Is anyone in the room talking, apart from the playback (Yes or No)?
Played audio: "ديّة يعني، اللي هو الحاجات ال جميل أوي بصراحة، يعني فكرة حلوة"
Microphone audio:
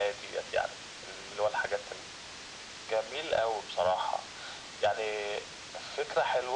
No